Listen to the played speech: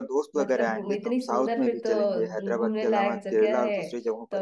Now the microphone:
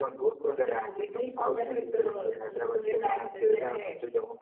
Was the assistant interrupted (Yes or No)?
No